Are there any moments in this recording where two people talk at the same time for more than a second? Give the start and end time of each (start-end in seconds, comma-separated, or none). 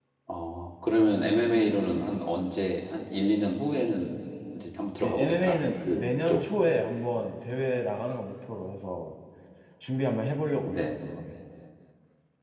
5.0-6.4